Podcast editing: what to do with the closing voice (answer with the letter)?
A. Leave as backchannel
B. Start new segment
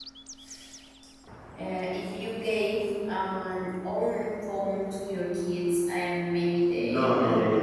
B